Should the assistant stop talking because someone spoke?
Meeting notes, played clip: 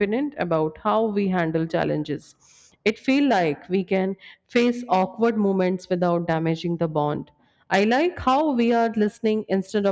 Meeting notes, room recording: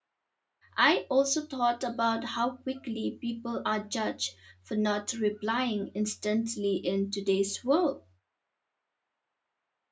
Yes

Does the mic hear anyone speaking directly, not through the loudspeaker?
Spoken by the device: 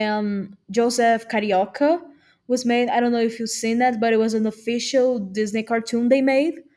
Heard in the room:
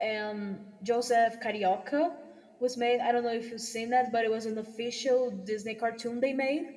No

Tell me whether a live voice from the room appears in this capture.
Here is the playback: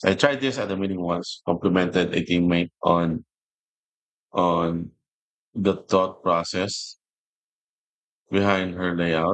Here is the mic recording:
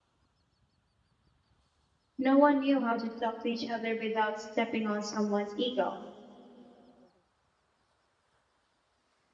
Yes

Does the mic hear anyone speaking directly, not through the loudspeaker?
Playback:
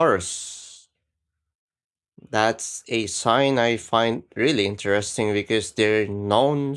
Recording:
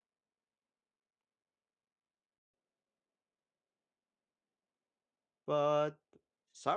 Yes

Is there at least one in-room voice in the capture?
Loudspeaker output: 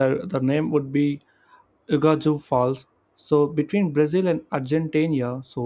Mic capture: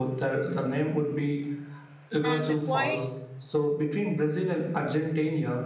Yes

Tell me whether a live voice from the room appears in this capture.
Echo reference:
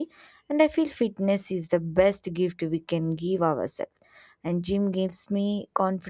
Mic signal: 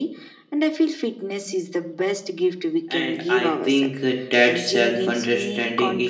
Yes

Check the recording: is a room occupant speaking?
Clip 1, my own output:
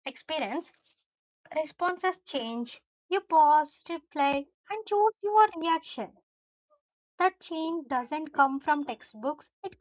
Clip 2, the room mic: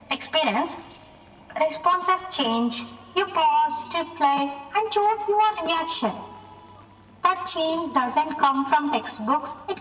No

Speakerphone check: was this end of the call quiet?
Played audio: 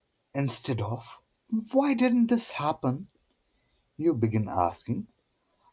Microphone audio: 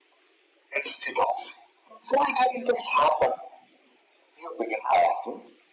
Yes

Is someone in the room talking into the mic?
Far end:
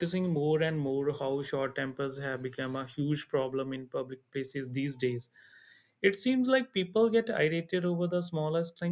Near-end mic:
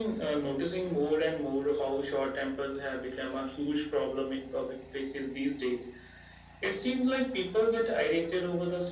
No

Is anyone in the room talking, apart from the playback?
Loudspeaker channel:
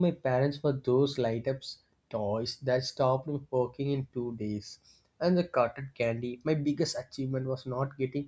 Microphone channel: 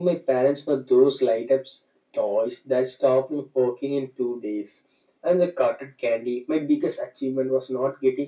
No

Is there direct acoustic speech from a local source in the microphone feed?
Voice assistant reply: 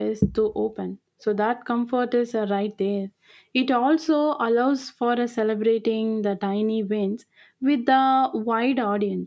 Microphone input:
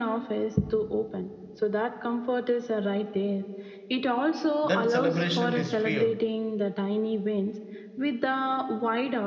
Yes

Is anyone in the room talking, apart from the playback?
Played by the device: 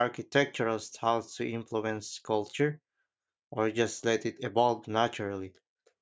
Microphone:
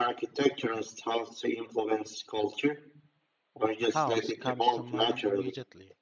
Yes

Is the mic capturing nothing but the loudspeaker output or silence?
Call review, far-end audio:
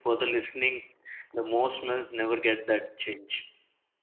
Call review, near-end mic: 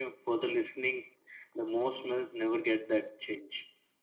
Yes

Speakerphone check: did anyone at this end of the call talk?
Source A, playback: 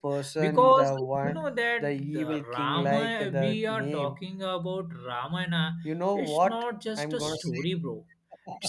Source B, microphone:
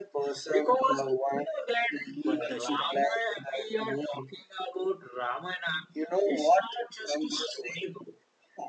Yes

